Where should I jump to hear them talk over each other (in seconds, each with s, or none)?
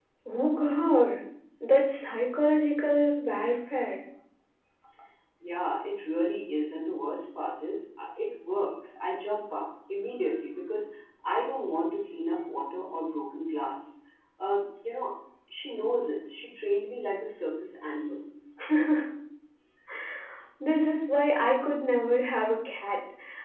none